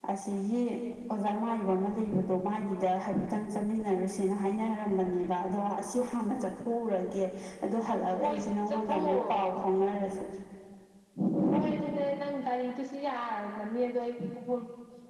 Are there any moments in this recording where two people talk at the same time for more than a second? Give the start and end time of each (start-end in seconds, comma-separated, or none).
8.2-9.4